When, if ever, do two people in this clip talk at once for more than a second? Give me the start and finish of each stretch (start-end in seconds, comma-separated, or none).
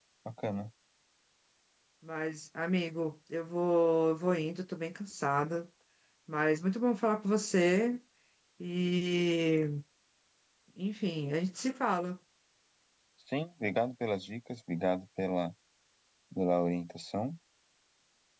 none